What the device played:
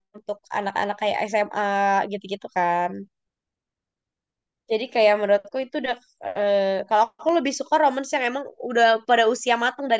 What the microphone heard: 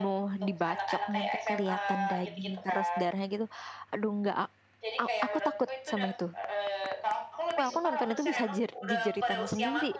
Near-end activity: present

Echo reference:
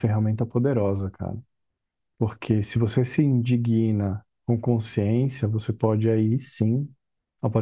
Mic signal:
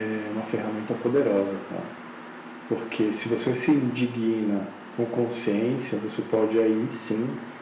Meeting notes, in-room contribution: none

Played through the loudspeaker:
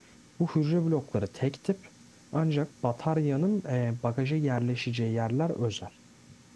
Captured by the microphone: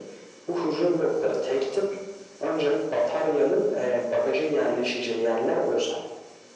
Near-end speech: none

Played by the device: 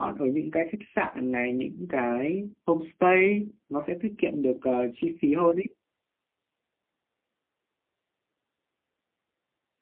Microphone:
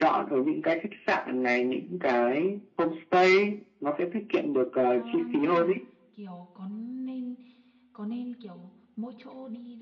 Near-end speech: present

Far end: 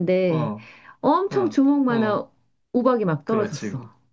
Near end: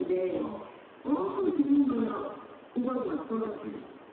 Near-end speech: none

